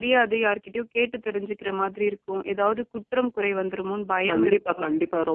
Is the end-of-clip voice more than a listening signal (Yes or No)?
Yes